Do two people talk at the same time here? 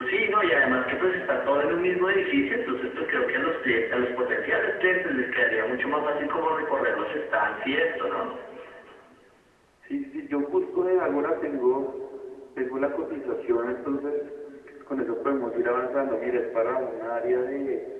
No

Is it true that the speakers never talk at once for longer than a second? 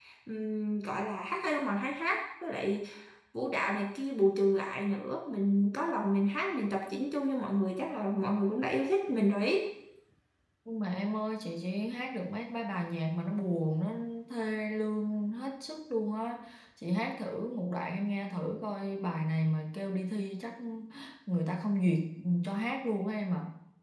Yes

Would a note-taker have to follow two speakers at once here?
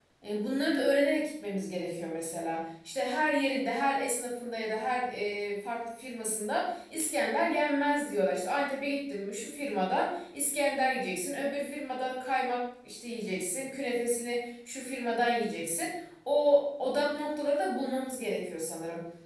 No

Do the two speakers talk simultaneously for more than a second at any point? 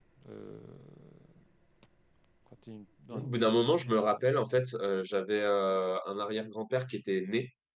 Yes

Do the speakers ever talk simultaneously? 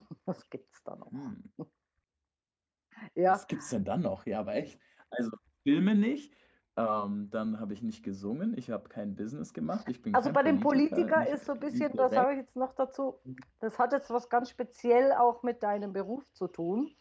Yes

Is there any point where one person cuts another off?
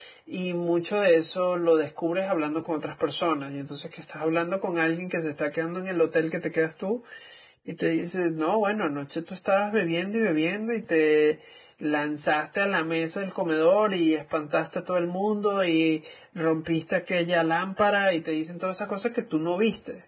No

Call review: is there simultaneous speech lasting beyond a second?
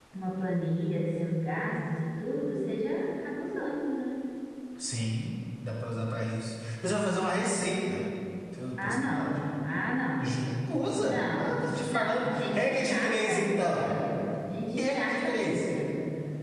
Yes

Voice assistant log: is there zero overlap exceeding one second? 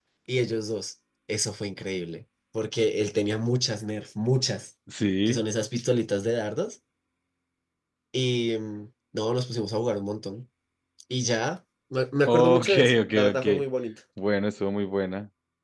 No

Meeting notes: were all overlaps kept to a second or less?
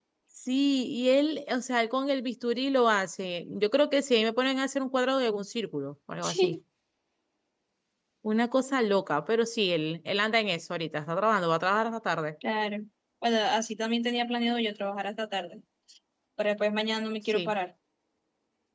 Yes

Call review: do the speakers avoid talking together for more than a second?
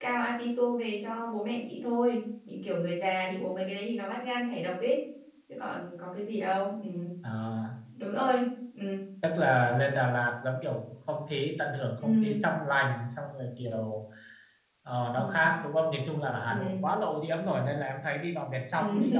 Yes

